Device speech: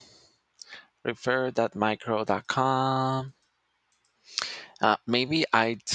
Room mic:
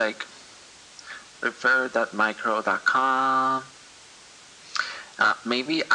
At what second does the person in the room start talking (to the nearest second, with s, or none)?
none